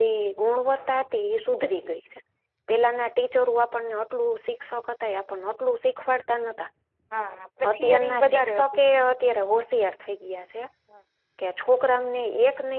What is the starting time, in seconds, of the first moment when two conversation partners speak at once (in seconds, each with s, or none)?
7.7 s